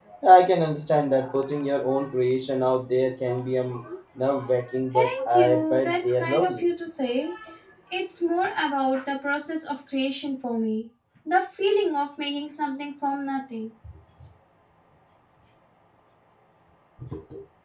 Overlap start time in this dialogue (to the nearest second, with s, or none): 5 s